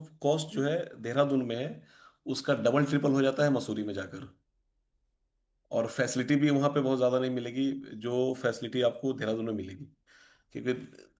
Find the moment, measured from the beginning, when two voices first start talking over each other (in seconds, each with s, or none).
none